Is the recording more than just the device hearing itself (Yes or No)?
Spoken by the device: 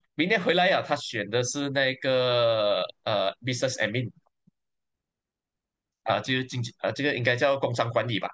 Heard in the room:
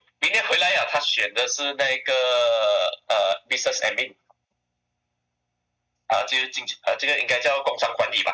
No